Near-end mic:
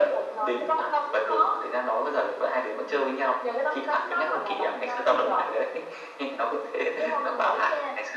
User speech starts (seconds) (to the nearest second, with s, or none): none